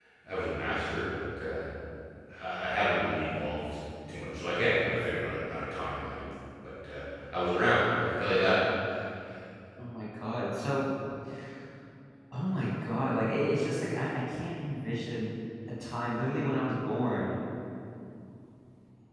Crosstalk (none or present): none